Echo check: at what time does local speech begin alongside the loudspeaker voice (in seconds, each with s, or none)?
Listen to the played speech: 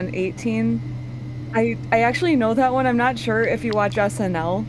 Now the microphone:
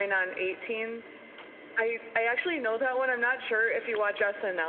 none